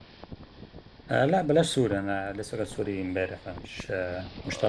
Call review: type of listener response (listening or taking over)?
taking over